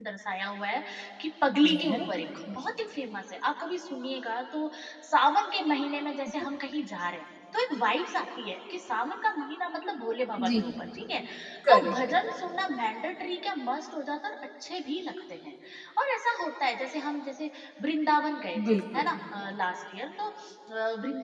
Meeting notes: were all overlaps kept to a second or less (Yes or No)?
Yes